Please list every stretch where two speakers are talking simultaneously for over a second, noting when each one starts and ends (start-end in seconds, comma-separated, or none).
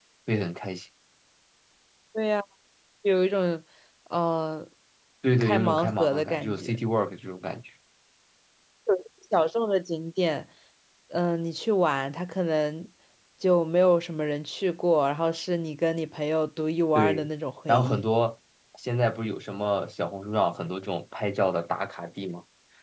5.4-6.8